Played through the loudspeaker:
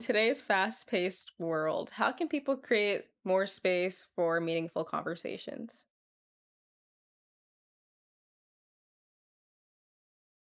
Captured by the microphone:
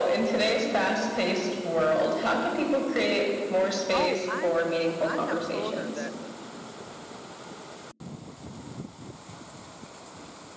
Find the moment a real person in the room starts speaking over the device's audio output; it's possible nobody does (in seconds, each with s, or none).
3.9 s